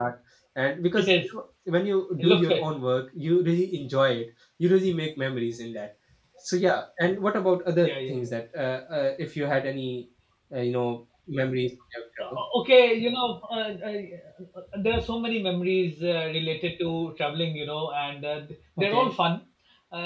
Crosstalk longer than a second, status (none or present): none